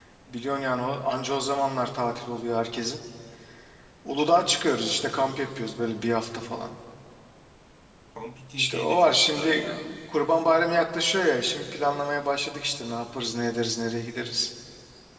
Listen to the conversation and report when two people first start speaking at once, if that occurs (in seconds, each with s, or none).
8.6 s